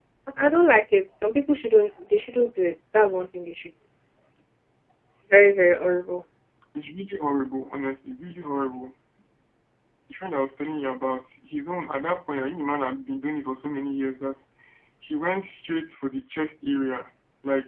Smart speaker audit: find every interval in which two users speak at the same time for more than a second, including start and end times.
none

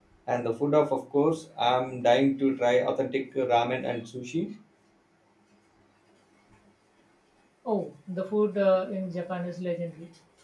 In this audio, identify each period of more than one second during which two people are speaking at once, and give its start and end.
none

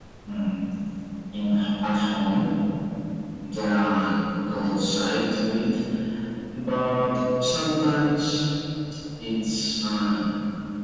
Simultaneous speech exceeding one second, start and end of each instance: none

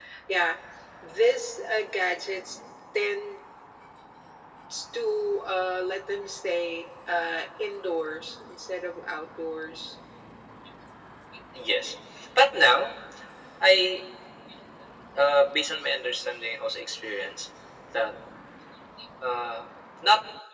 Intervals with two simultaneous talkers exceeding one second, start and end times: none

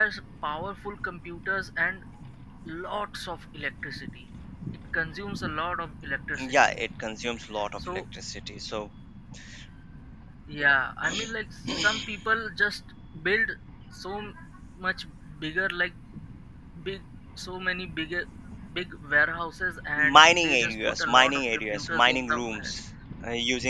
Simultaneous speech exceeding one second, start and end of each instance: 20.0-22.7

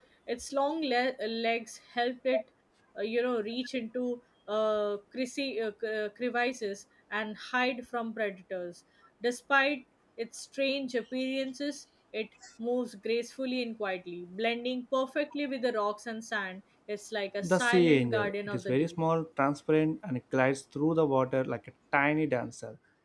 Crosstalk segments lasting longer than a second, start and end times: 17.4-18.9

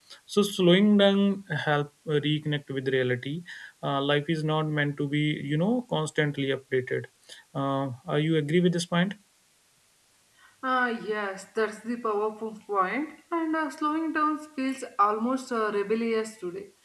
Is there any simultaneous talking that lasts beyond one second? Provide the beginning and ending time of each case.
none

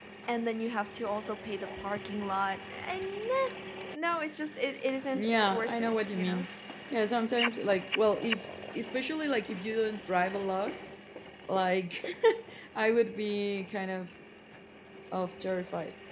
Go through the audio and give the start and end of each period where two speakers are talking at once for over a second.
5.1-6.4

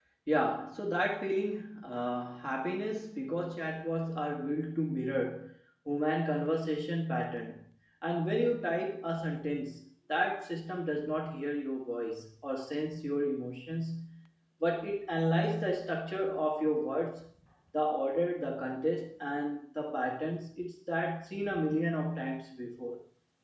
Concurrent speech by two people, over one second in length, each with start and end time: none

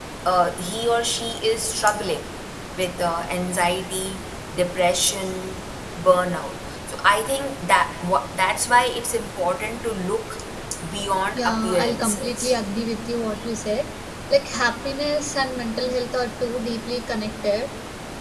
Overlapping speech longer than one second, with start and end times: 11.4-12.6

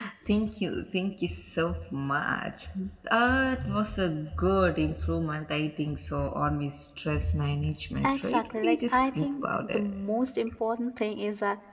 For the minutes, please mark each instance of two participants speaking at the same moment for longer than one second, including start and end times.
8.0-9.8

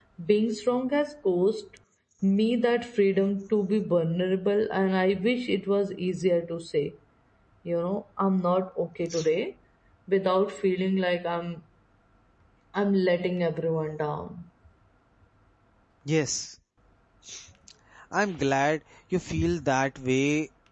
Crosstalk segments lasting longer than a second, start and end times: none

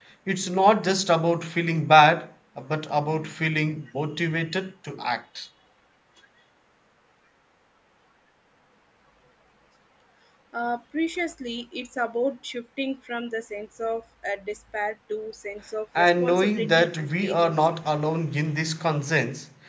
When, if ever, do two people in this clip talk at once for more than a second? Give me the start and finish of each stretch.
16.0-17.8

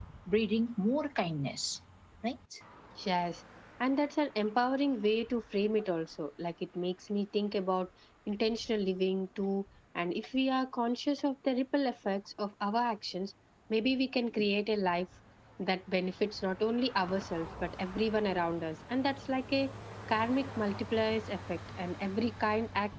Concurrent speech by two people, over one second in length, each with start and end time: none

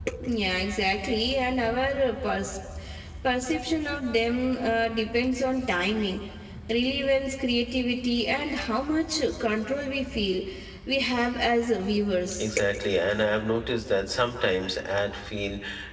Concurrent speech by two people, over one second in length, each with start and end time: none

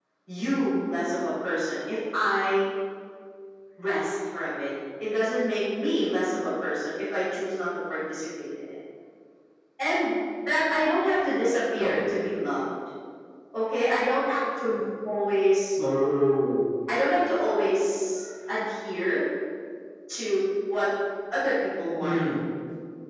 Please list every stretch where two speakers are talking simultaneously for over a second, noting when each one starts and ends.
none

